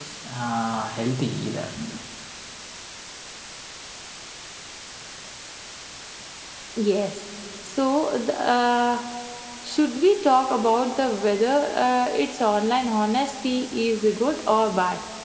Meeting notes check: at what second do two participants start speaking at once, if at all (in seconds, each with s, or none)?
none